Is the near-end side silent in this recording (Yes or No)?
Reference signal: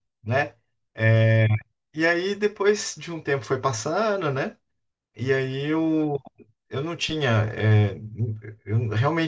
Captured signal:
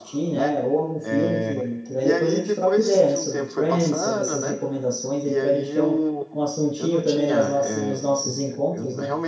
No